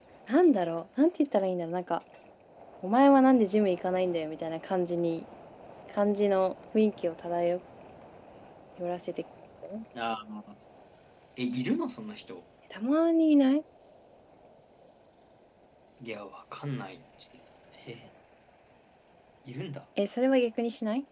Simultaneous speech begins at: none

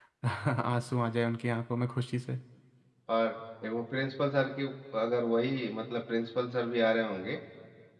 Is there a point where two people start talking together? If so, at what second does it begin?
none

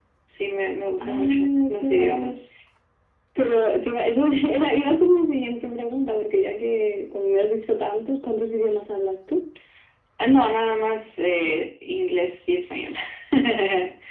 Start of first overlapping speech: 1.0 s

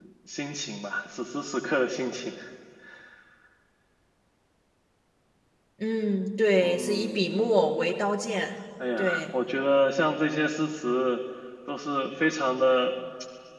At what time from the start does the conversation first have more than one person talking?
6.6 s

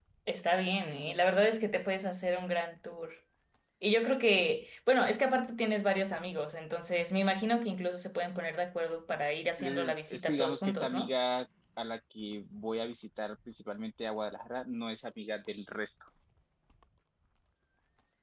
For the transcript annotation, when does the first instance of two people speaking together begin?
9.6 s

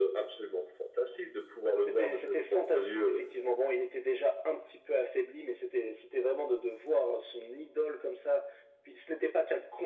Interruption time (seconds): 1.9 s

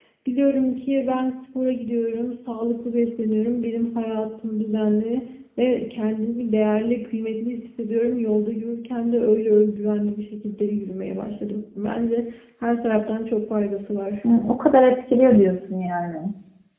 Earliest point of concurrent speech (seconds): none

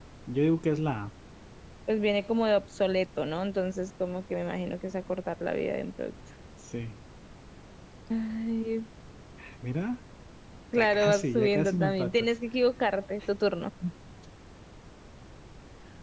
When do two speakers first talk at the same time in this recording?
10.8 s

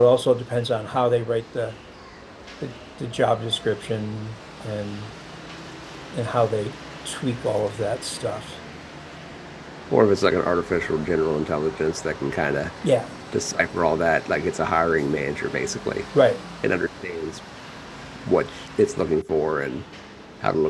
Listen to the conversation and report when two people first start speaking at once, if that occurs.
none

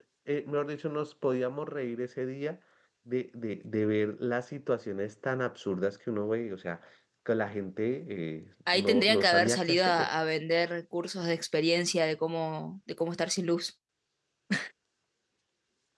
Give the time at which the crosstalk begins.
8.7 s

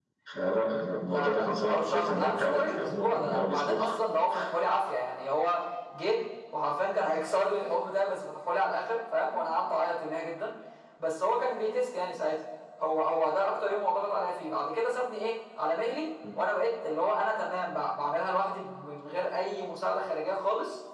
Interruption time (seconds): 1.1 s

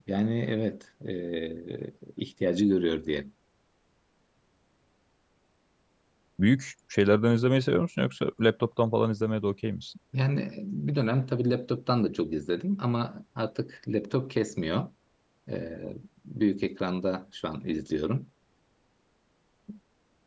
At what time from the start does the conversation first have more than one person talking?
none

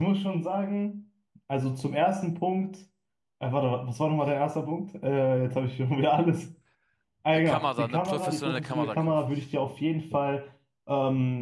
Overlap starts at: 7.3 s

